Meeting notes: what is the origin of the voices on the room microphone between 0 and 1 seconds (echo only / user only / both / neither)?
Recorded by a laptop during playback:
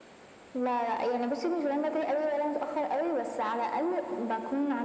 echo only